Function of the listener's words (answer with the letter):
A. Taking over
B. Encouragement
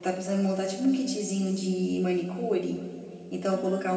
B